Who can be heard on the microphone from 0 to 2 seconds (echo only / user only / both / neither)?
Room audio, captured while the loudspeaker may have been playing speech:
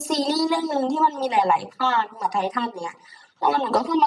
echo only